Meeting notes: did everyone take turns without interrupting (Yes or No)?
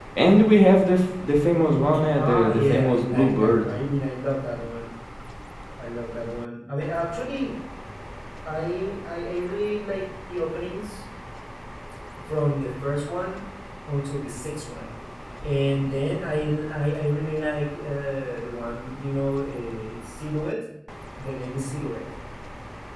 No